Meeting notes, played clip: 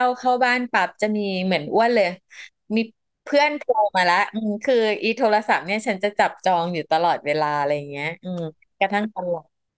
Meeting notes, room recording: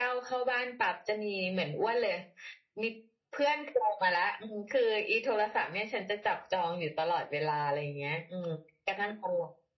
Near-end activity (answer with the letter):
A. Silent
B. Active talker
A